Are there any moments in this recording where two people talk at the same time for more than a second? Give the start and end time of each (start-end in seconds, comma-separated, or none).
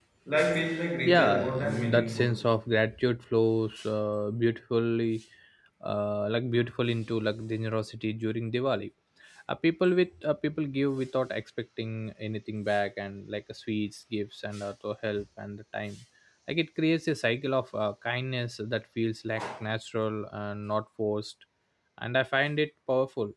1.1-2.3